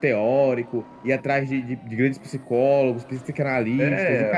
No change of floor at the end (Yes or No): No